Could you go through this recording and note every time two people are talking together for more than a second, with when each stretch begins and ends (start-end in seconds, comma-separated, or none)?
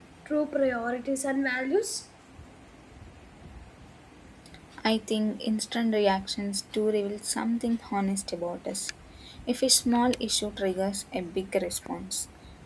none